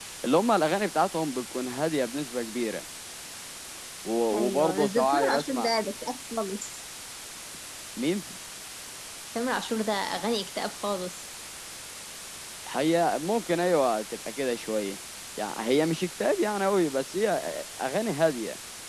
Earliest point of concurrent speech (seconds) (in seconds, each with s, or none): 4.3 s